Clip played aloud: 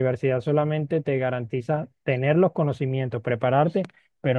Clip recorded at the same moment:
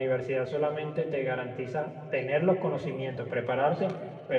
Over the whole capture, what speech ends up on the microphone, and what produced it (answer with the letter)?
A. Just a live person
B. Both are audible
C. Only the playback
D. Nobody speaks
C